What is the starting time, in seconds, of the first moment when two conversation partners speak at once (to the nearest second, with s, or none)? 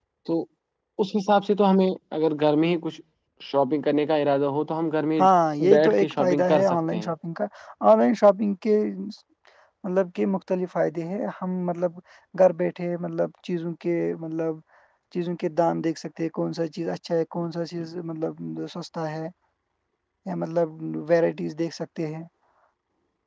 6 s